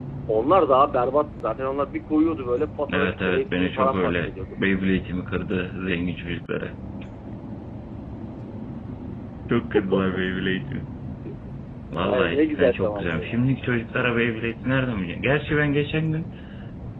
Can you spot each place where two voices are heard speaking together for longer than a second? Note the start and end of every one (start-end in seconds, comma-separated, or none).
2.9-4.3, 12.0-13.4